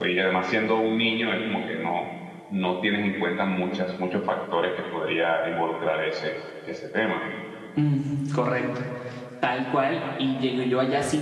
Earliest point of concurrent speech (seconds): none

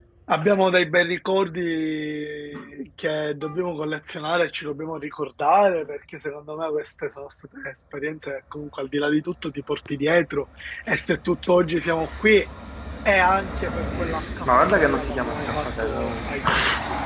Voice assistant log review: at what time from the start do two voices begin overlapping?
14.4 s

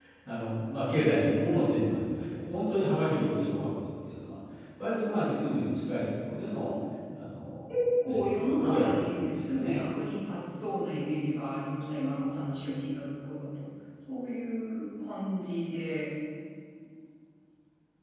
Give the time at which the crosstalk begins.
8.0 s

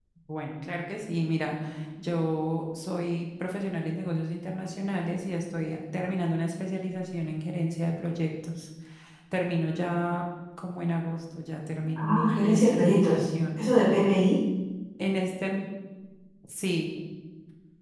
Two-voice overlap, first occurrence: 12.0 s

